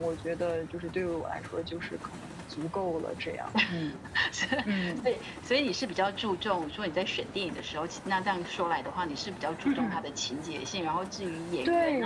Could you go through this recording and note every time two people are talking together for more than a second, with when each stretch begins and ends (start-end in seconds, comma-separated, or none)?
none